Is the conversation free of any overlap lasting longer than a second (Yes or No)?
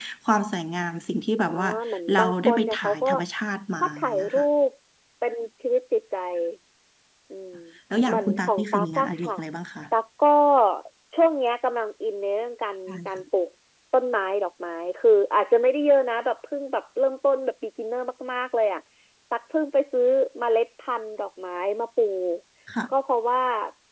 No